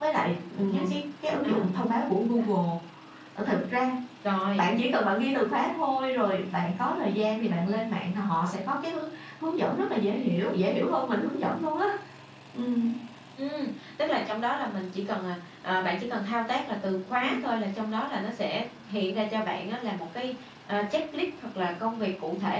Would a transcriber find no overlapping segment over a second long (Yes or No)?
Yes